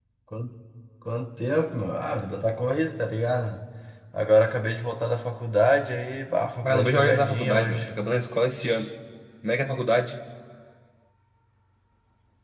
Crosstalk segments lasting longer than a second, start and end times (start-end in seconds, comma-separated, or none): 6.6-7.9